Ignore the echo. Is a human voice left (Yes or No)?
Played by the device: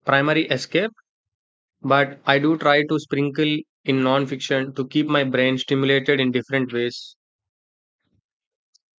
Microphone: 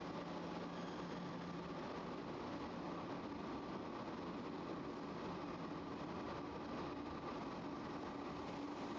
No